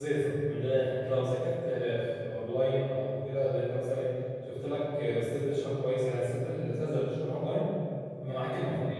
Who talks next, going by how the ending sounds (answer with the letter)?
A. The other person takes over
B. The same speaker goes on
B